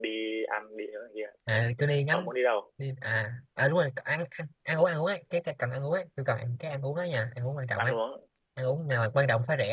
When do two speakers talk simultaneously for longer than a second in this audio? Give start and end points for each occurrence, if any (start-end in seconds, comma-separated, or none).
none